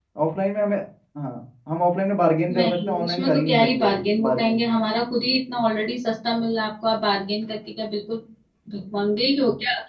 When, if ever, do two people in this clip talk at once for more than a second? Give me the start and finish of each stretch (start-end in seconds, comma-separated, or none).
2.6-4.6